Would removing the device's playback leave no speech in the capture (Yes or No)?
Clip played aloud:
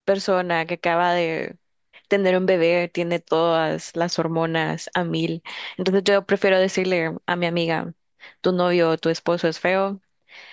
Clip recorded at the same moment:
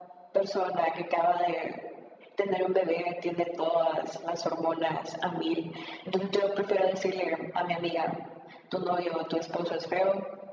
Yes